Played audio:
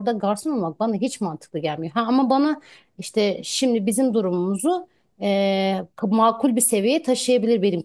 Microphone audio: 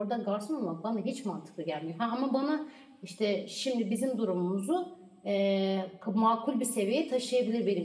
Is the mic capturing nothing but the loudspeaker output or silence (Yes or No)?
Yes